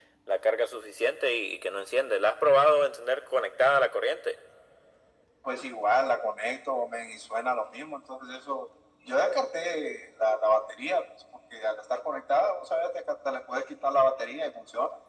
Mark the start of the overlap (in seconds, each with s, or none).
none